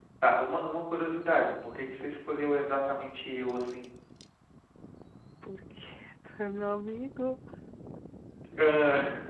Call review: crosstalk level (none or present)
none